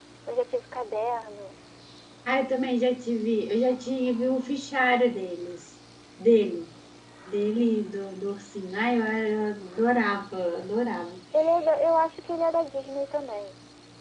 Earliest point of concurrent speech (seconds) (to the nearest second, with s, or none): none